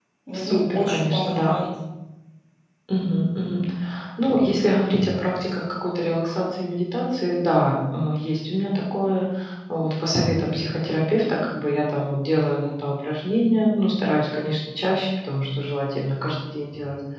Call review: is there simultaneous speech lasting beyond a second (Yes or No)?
Yes